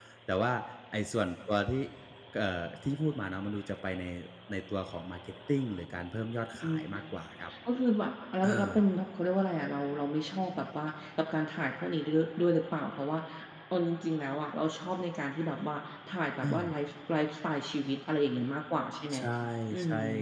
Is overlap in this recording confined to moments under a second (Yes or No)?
Yes